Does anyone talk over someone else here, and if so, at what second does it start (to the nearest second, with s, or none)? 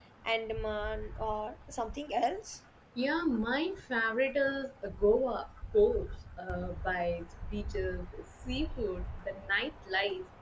none